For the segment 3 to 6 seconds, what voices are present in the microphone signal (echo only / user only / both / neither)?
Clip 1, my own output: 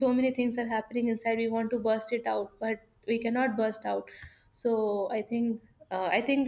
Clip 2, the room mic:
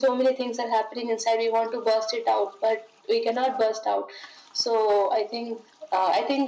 echo only